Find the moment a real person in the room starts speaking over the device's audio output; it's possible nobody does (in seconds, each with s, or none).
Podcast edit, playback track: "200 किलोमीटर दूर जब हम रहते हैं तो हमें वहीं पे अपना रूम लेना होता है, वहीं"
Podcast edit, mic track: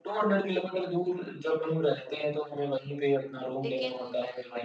3.6 s